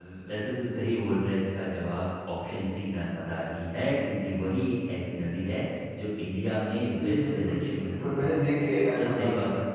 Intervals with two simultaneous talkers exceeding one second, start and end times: 7.0-8.6

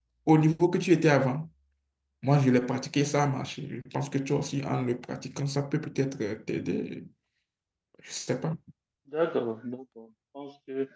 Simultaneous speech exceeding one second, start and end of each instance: none

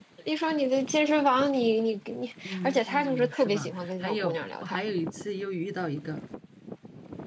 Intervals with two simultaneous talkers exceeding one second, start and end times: 2.5-4.8

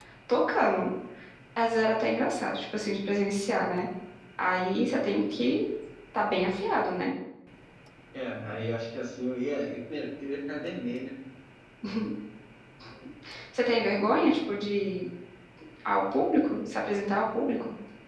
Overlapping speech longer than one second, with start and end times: none

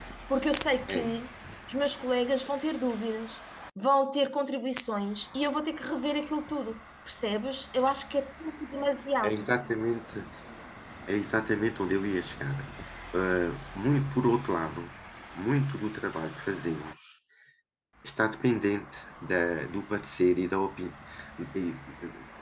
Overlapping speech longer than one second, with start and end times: none

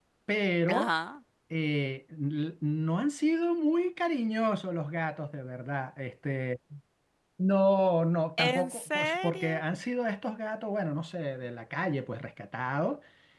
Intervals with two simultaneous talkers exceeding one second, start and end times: 8.4-9.6

